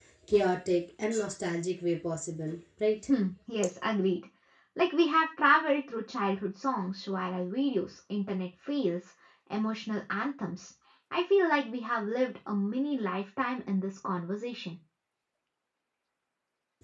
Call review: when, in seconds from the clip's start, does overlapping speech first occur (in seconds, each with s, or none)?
none